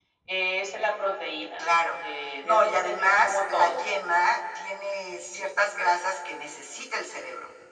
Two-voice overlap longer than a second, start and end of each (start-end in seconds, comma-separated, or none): 2.4-3.8